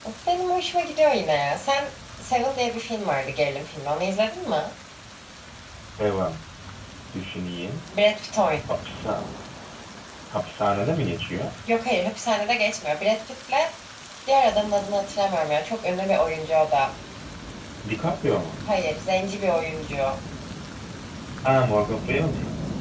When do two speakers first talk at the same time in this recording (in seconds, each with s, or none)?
none